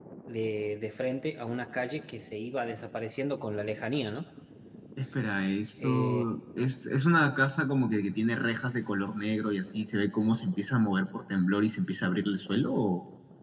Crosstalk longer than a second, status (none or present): none